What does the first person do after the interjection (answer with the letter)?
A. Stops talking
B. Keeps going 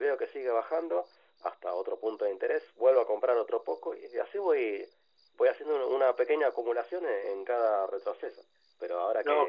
B